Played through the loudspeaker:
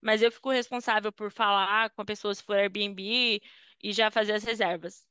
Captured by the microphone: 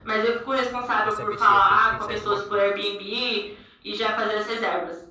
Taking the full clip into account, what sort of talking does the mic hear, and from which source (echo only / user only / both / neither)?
both